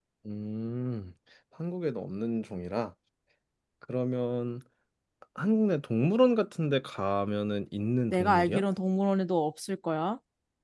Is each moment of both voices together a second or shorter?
Yes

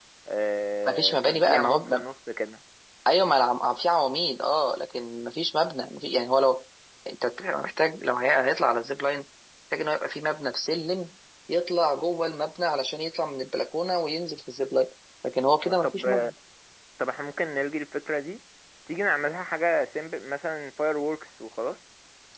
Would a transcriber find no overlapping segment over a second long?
No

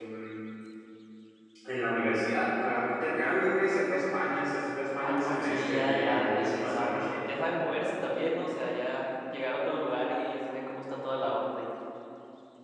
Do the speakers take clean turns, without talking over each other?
No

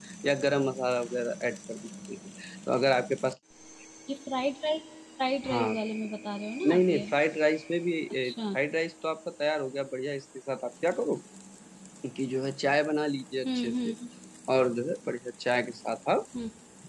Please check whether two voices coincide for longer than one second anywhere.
No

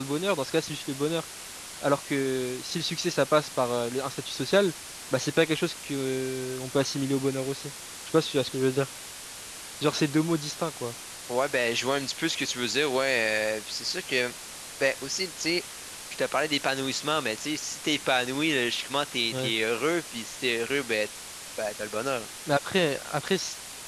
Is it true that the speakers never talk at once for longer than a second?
Yes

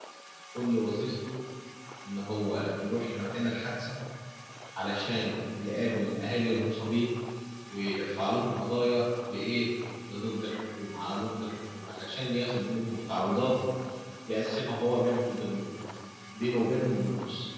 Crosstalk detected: No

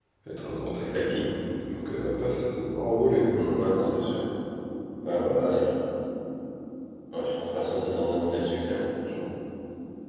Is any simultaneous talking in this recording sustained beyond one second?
No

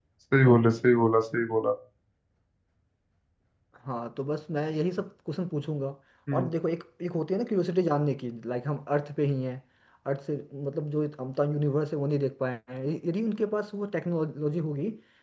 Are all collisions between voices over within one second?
Yes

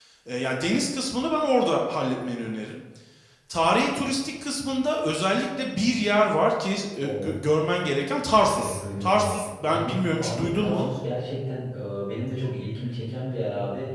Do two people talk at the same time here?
Yes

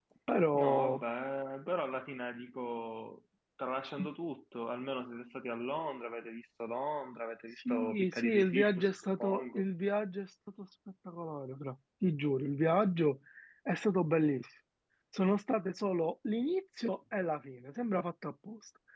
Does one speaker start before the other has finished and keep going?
Yes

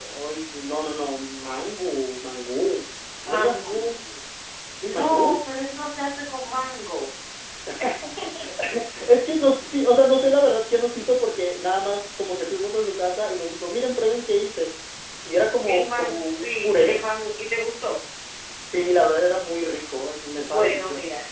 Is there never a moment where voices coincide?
No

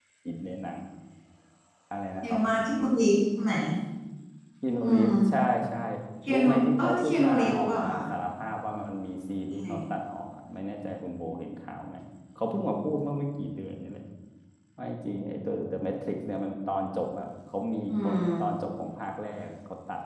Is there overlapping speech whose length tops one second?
Yes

